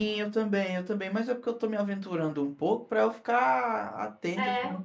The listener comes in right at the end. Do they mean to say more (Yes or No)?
No